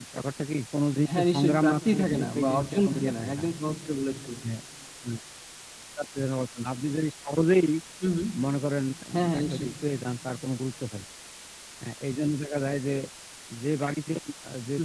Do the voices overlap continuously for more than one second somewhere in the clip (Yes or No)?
Yes